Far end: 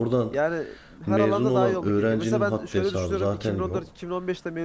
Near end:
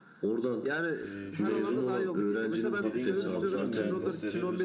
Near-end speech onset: 1 s

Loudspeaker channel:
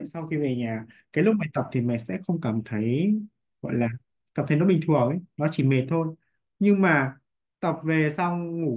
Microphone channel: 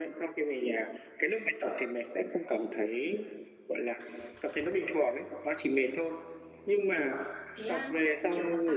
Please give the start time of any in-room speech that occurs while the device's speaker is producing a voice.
8 s

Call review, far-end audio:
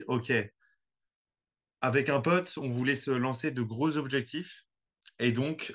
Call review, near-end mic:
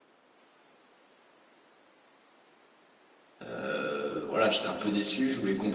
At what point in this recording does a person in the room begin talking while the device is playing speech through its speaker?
3 s

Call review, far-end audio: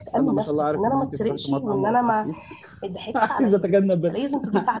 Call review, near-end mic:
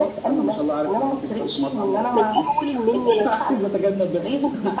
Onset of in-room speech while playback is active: 2 s

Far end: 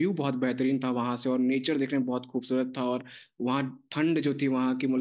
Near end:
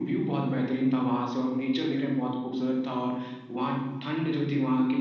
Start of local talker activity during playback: none

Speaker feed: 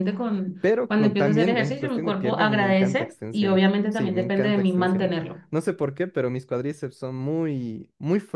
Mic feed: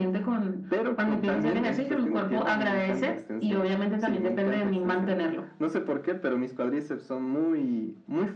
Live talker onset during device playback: none

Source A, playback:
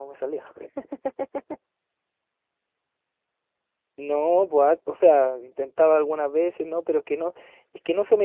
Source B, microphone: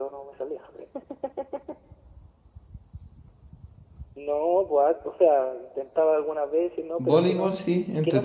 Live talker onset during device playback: 7 s

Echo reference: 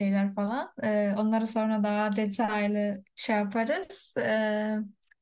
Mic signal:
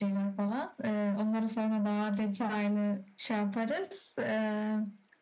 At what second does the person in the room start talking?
none

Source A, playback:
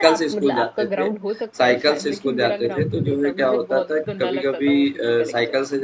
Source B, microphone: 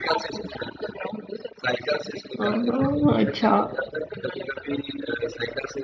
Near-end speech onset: 2 s

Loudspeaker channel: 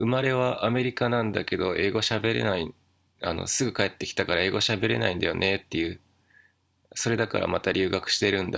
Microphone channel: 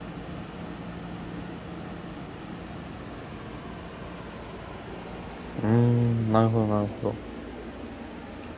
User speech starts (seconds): 6 s

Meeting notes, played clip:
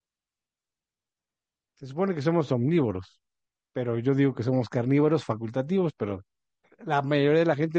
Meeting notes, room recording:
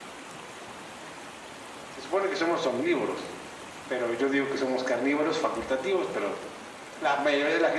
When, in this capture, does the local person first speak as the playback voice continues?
none

